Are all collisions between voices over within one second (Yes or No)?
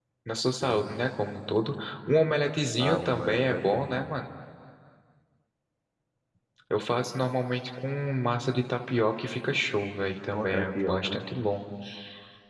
No